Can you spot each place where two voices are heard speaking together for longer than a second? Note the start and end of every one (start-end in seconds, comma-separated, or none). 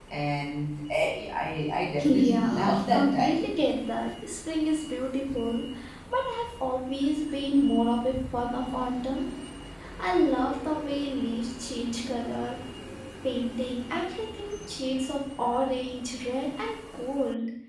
2.0-3.5